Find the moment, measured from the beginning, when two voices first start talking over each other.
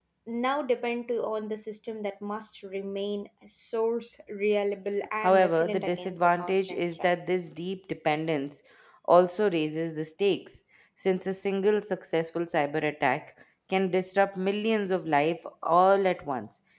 5.2 s

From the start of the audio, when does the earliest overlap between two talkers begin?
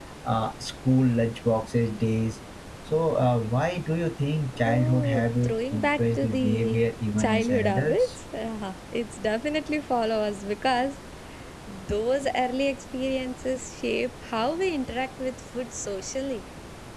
4.6 s

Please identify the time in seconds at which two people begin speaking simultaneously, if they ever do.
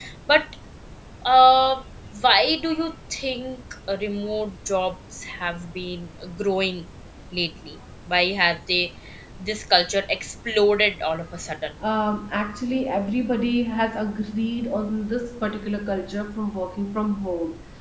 none

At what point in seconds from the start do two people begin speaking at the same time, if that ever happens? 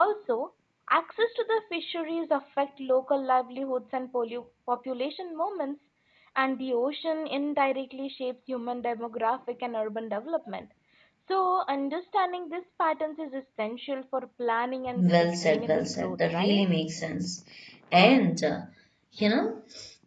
14.9 s

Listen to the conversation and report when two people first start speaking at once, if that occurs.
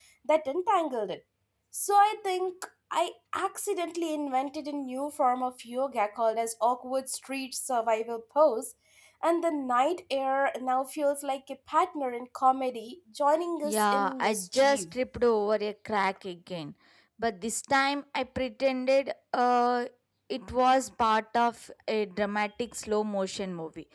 13.6 s

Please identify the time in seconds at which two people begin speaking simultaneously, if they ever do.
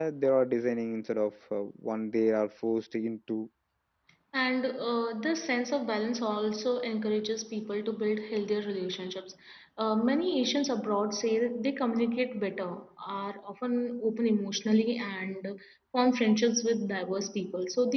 none

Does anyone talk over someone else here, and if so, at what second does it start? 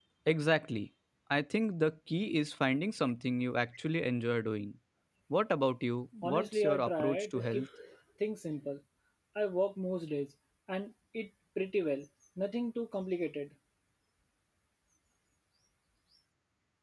6.2 s

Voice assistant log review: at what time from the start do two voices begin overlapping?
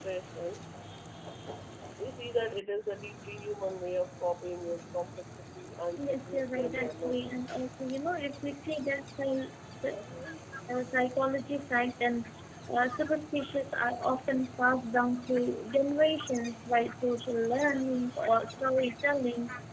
5.9 s

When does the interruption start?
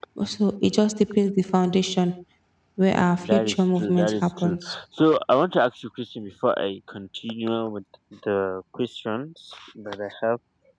3.3 s

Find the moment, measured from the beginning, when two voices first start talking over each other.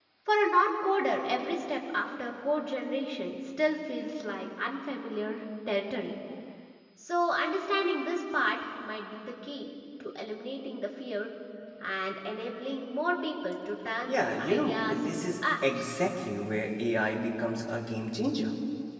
14.1 s

